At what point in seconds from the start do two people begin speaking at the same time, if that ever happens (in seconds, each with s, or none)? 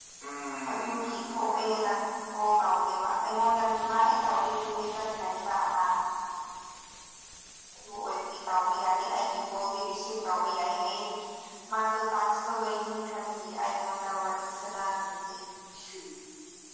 0.7 s